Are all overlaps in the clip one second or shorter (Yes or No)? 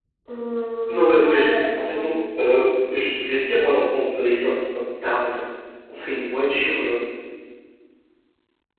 No